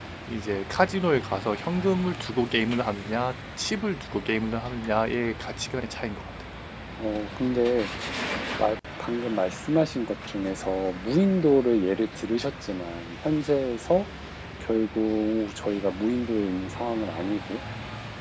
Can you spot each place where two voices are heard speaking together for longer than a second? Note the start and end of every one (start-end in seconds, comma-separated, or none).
none